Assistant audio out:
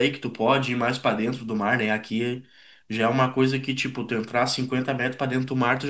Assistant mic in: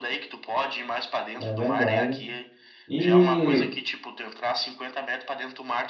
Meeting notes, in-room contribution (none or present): present